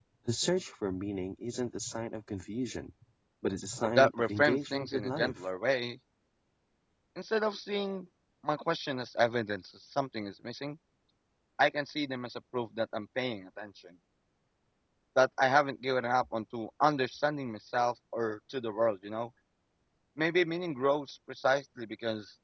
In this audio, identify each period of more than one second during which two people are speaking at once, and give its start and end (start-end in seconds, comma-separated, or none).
4.0-5.4